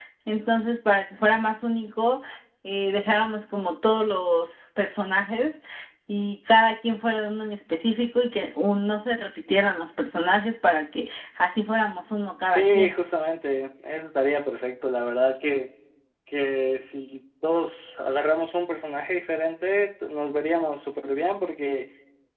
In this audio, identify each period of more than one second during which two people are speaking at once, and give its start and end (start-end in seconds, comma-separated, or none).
none